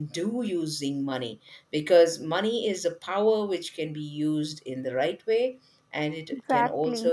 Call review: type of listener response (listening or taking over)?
listening